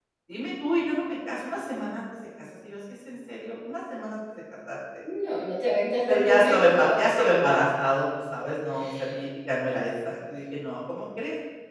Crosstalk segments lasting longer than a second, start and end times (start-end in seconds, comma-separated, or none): 6.1-7.4